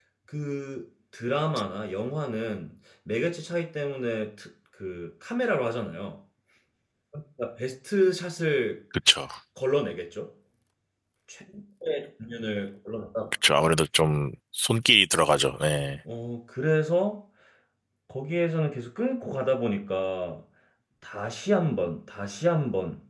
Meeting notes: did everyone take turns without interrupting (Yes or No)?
Yes